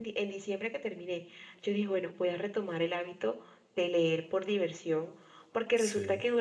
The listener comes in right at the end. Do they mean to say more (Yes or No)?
No